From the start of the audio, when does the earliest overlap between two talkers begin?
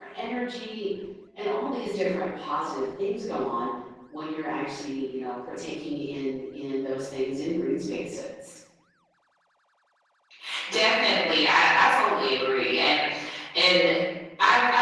none

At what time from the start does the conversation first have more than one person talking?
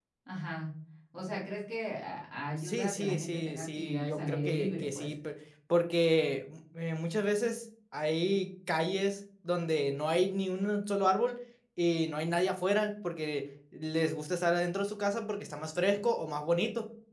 2.6 s

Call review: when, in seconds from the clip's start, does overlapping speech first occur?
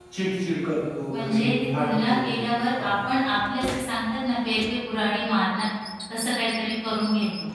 1.1 s

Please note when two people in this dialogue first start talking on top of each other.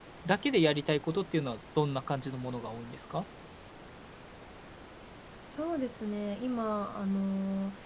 none

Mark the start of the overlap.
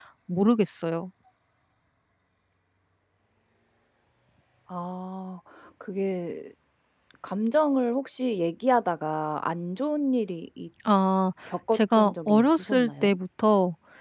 11.7 s

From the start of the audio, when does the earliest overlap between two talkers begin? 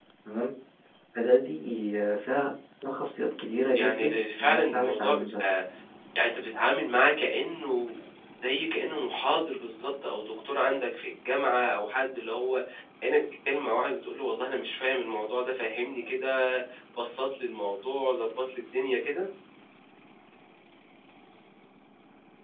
3.8 s

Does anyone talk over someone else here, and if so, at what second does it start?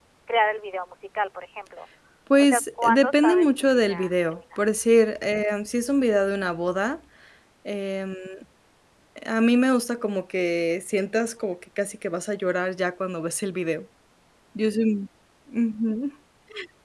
2.4 s

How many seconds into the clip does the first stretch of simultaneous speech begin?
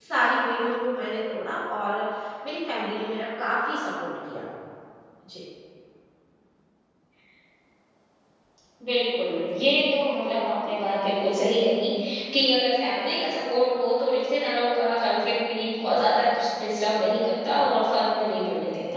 none

